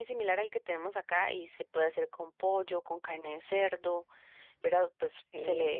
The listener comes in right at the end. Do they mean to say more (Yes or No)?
No